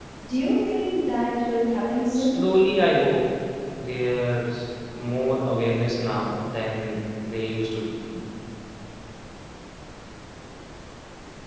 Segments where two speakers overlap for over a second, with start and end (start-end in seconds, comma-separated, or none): none